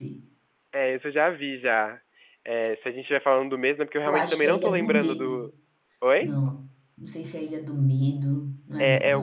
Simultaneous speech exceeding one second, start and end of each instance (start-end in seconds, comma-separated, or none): 4.0-5.4